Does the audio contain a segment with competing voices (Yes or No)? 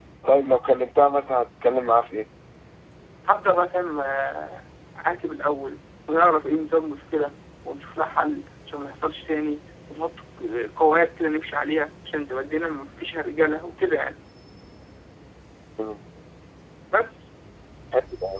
No